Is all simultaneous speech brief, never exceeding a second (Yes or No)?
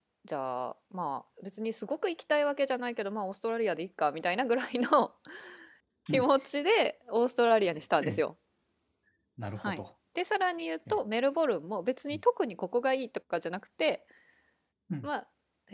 Yes